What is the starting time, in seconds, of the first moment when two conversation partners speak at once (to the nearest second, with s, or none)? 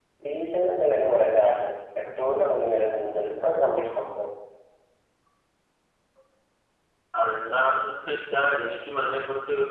none